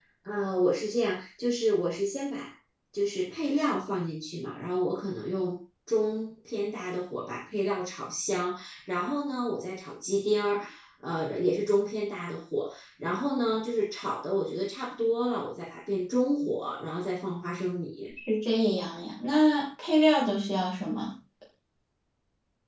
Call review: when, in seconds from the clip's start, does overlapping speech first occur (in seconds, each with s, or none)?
none